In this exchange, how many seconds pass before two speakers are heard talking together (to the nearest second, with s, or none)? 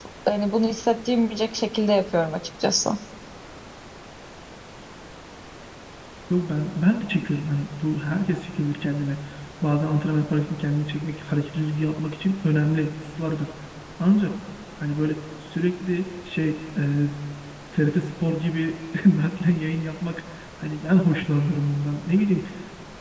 none